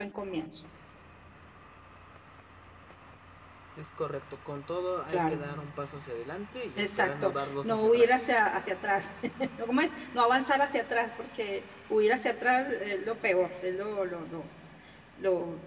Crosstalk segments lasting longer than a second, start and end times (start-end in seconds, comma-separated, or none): 6.8-8.3